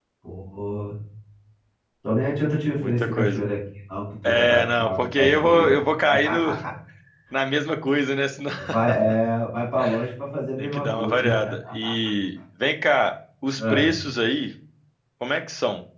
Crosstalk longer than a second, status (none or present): present